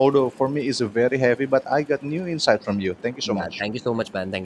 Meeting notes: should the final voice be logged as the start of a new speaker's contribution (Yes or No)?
Yes